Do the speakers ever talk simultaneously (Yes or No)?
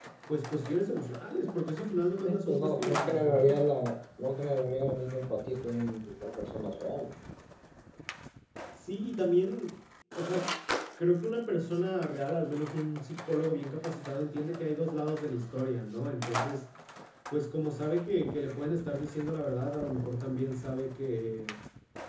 Yes